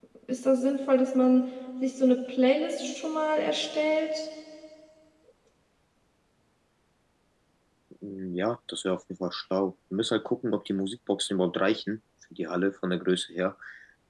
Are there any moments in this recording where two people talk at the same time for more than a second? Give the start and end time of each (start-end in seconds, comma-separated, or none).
none